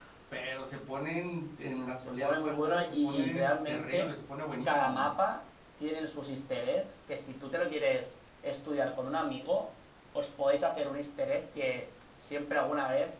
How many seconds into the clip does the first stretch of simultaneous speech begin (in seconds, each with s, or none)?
2.0 s